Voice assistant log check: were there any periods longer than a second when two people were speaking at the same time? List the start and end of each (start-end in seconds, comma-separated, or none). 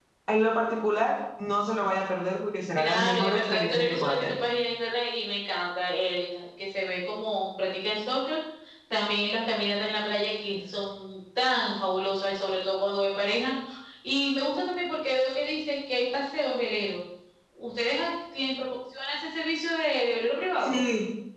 2.8-4.3